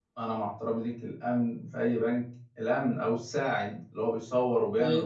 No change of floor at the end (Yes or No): Yes